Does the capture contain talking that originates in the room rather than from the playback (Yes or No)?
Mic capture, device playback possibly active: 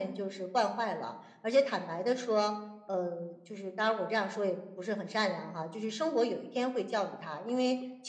No